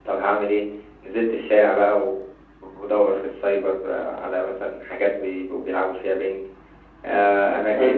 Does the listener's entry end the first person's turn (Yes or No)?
No